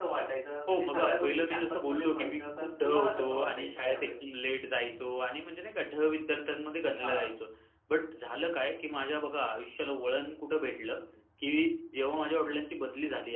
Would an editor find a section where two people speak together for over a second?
Yes, from 0.7 s

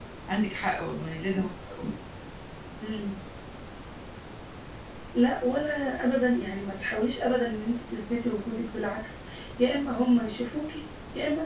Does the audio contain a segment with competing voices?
No

